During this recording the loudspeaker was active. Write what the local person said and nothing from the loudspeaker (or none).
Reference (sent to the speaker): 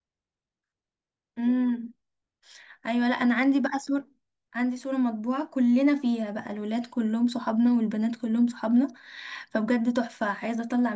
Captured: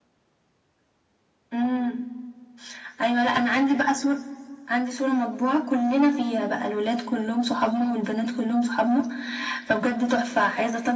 none